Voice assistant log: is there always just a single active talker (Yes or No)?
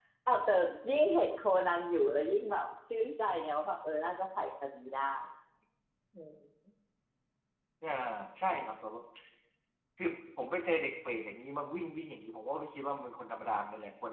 Yes